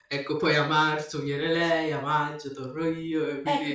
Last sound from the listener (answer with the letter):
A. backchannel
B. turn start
B